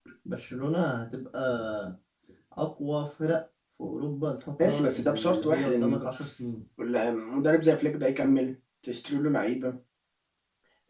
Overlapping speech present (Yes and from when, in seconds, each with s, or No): Yes, from 4.6 s